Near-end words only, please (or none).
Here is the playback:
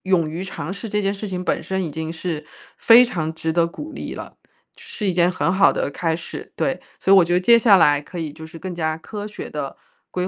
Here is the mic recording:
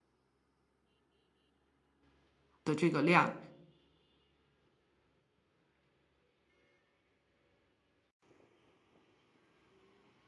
的这个量。